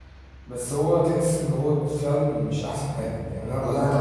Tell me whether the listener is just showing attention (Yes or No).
Yes